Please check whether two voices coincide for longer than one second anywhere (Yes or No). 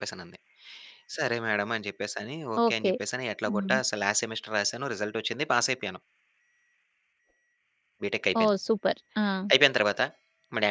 No